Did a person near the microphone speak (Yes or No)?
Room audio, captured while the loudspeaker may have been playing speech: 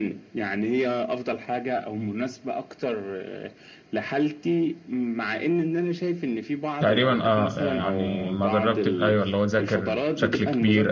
Yes